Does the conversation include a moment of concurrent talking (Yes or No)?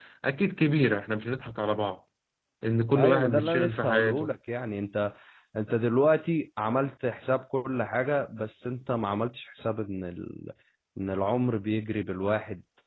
Yes